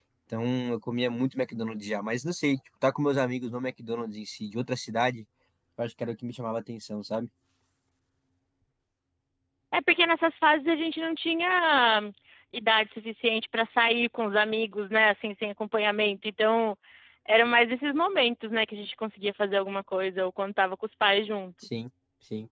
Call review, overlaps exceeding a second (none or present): none